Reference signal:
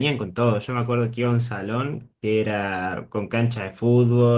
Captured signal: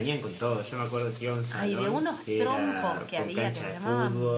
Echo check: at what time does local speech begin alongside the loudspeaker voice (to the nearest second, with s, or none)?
1 s